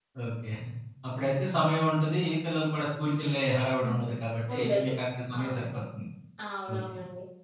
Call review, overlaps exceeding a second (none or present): none